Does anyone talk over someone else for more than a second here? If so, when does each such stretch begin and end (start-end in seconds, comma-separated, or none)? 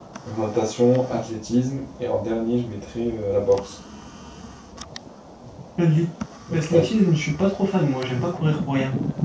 none